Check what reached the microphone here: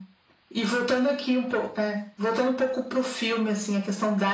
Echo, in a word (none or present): present